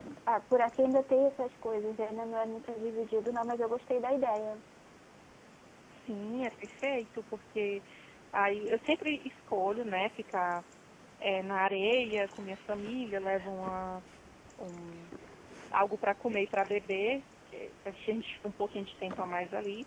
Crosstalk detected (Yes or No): No